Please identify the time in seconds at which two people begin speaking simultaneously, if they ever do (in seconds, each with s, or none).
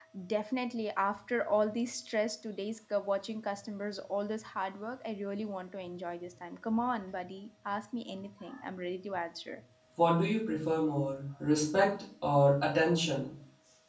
none